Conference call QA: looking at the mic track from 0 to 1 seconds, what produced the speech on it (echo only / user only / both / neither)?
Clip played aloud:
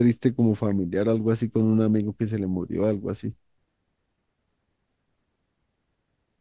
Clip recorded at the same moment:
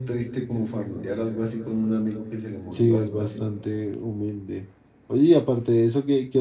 echo only